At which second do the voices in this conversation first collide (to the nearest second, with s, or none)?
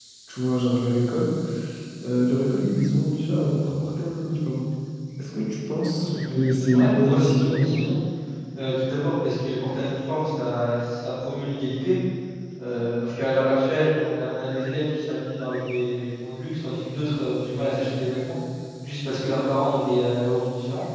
6 s